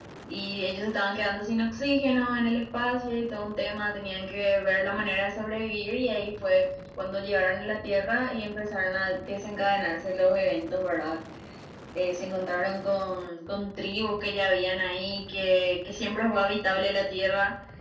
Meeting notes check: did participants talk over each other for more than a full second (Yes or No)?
No